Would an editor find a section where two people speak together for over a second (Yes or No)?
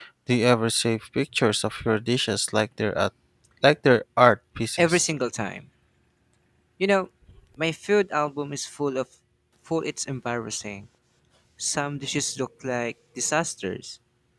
No